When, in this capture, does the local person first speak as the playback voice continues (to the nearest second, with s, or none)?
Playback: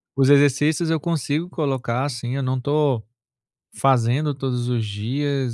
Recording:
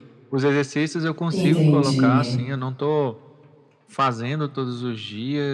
1 s